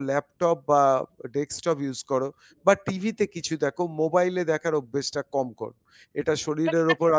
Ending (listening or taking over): listening